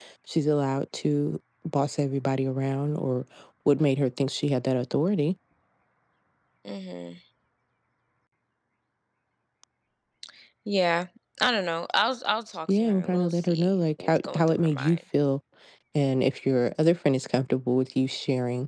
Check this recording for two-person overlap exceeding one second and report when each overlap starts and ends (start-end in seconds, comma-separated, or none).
12.7-15.0